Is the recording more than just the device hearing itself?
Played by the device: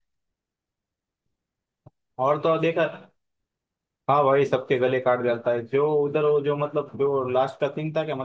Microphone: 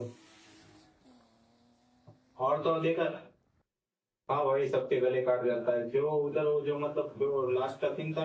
No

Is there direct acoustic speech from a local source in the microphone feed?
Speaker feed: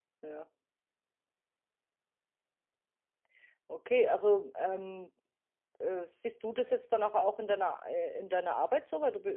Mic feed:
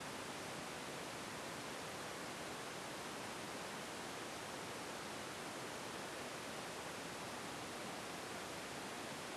No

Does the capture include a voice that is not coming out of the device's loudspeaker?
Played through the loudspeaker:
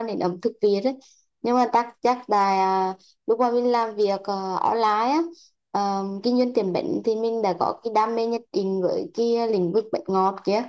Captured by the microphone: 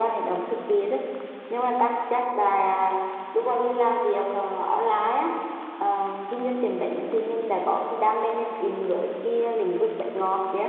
No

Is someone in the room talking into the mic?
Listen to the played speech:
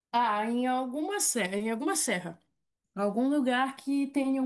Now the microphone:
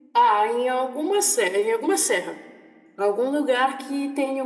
No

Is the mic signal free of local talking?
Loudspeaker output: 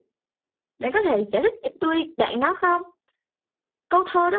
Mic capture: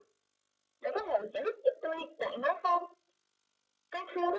Yes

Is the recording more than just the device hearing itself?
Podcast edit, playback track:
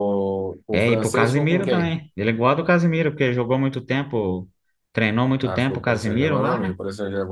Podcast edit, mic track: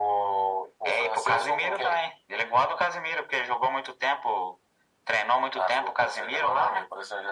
No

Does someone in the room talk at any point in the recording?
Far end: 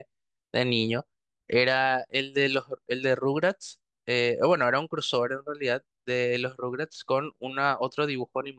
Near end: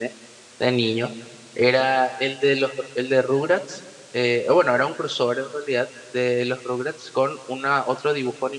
No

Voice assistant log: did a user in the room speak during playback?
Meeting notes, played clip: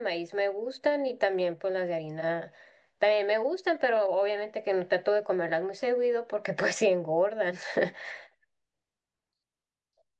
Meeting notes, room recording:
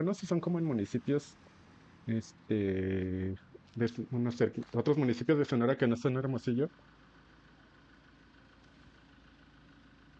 Yes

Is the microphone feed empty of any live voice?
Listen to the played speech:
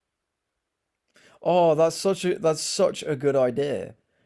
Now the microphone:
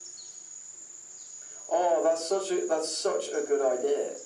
Yes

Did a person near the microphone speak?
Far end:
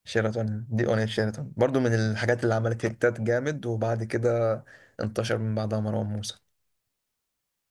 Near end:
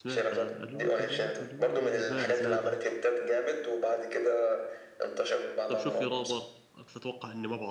Yes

